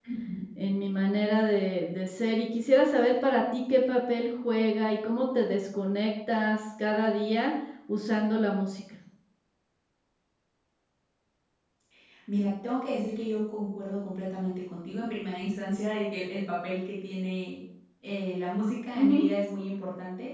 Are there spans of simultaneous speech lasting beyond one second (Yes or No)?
No